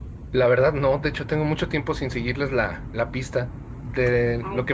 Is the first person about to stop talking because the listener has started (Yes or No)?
No